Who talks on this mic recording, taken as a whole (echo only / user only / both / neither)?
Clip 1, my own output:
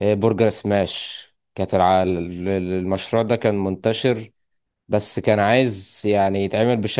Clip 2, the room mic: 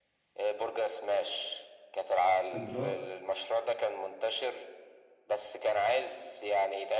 both